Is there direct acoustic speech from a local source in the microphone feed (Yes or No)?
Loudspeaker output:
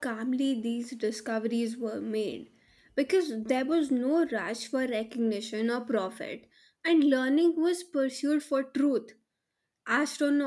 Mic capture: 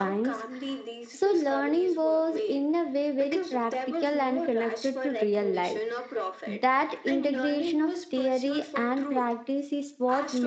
Yes